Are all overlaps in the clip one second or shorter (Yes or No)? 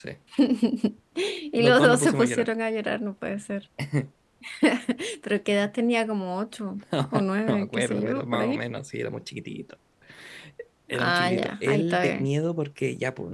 No